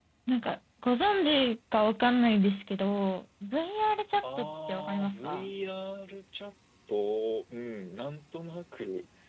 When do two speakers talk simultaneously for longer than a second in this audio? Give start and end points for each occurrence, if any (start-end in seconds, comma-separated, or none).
4.2-5.5